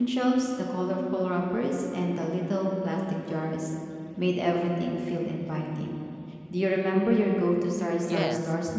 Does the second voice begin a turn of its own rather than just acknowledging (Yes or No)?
Yes